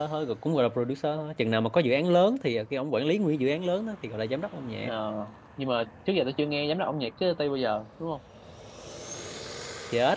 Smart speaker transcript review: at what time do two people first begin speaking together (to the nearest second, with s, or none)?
none